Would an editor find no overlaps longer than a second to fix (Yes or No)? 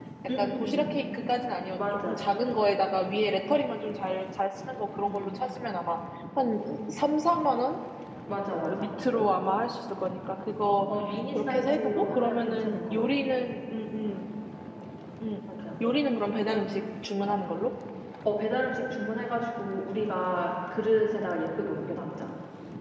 No